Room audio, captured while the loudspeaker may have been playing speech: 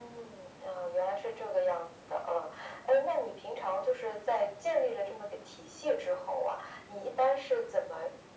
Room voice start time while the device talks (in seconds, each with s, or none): none